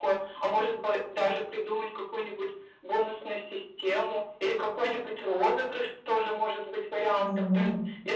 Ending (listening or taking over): listening